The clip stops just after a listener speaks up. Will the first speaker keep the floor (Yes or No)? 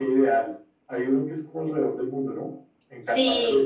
No